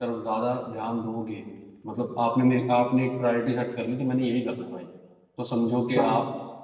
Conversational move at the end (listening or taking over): listening